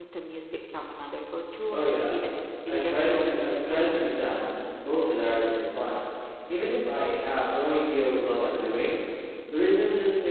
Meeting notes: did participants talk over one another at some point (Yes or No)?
Yes